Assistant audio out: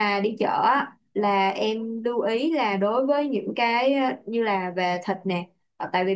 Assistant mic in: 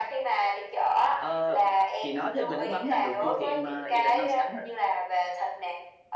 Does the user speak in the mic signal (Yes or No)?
Yes